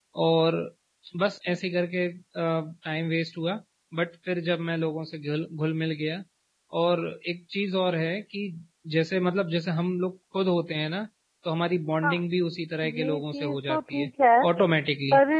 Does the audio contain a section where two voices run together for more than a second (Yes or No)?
Yes